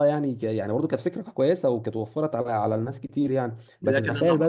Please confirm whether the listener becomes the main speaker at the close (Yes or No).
Yes